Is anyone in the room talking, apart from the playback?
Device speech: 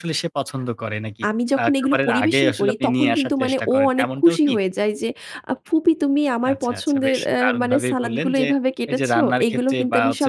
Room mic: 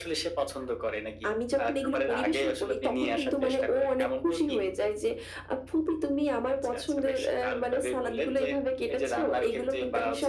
No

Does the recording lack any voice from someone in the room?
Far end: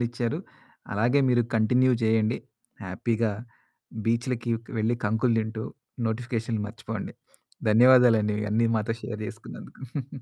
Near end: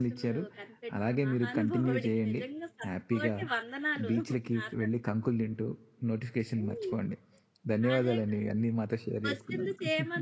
No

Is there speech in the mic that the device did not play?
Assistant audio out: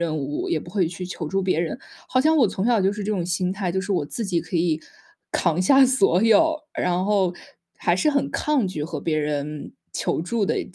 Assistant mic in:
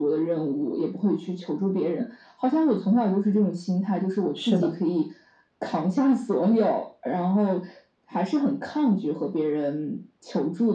Yes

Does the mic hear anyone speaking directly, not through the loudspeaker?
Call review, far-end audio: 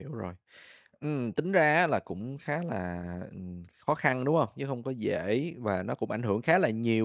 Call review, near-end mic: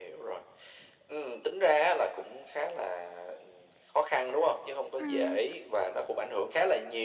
Yes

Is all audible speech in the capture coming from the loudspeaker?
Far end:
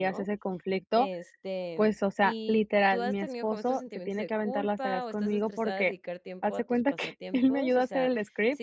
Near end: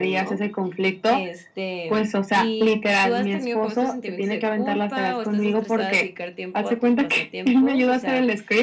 Yes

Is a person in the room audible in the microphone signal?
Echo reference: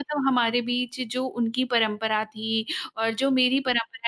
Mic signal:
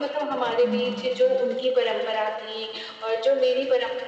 Yes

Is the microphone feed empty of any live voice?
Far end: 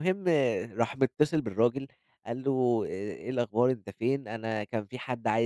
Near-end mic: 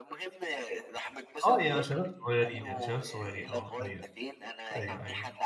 No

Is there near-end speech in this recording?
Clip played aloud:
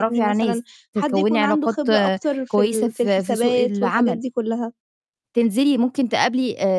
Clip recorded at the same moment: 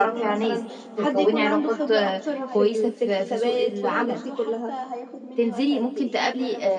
Yes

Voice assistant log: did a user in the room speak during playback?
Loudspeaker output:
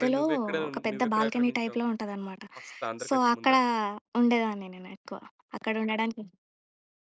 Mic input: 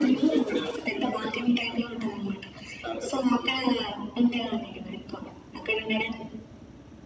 No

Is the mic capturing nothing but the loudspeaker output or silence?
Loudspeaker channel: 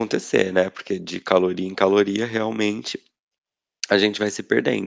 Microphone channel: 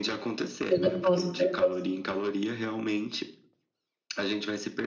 No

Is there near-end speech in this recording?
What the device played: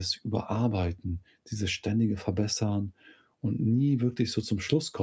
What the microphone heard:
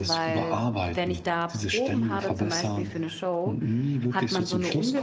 Yes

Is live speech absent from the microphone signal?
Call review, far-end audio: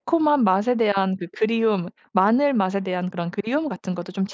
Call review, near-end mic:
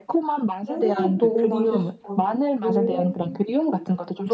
No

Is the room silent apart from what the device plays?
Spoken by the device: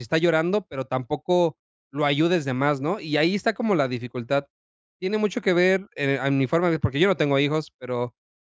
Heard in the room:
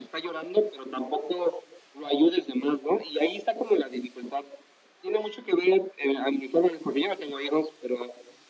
Yes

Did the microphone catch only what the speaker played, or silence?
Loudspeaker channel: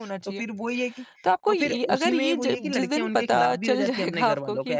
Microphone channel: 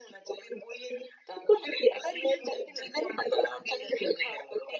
Yes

